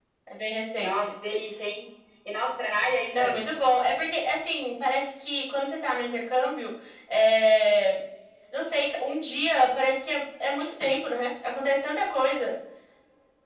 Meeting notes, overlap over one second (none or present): none